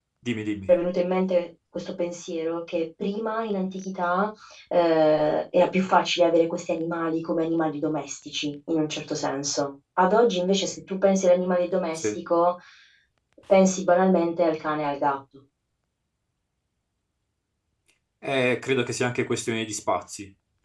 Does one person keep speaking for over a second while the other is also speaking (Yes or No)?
No